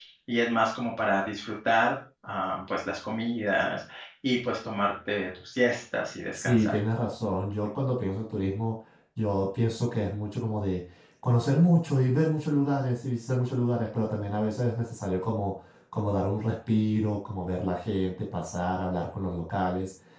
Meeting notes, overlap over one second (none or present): none